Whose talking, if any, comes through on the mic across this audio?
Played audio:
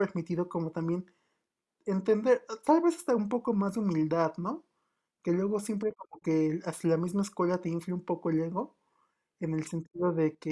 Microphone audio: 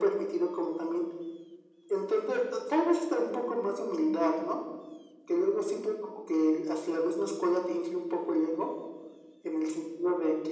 echo only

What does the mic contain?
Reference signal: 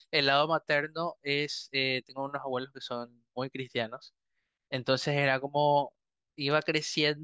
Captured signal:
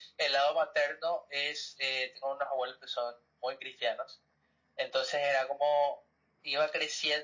echo only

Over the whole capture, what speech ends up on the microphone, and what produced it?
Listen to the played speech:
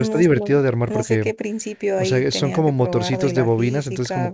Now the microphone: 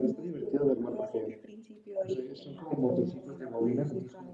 echo only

